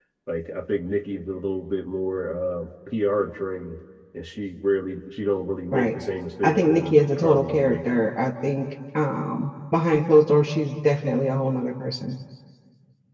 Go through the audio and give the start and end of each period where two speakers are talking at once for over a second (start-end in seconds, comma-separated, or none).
6.4-7.9